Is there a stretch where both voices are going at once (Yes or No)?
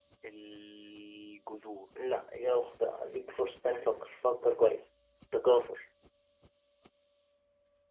No